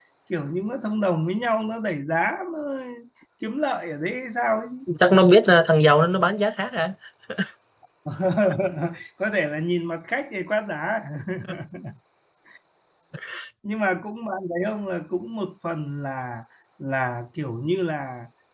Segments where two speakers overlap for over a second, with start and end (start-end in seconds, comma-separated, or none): none